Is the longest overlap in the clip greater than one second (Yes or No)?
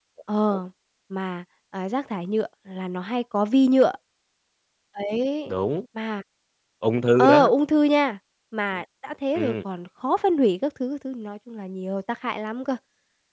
No